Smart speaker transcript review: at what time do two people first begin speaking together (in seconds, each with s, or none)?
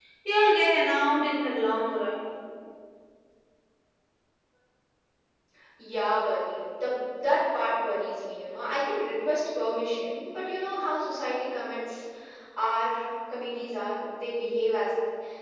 none